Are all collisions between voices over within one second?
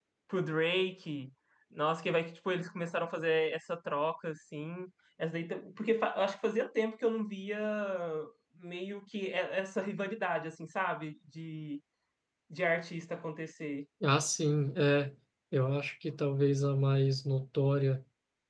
Yes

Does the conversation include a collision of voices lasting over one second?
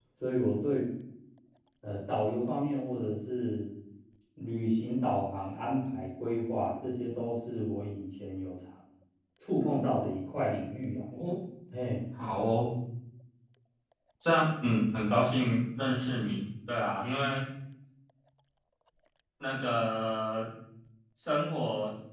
No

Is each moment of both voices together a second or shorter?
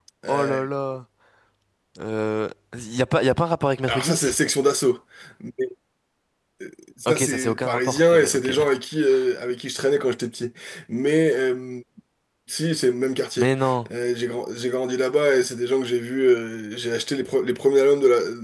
No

